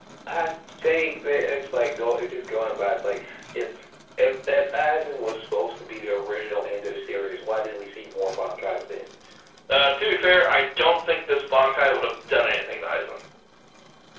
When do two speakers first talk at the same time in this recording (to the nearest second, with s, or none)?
none